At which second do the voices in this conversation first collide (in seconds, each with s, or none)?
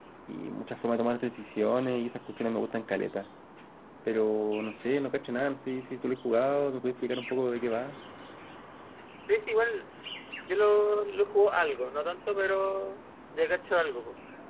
none